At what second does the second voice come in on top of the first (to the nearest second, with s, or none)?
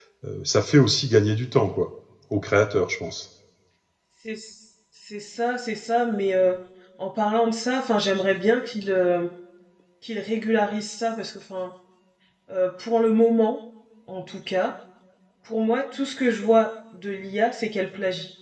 none